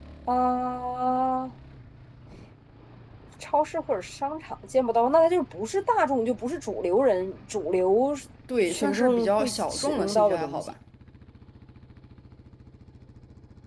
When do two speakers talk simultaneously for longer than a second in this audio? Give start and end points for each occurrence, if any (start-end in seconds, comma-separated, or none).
8.7-10.7